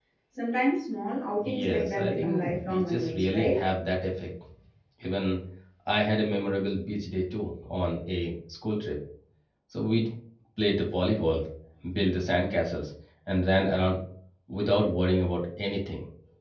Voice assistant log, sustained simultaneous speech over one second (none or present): present